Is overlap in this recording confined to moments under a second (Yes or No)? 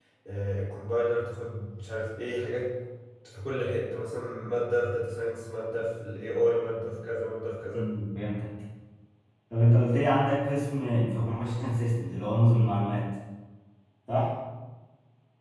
Yes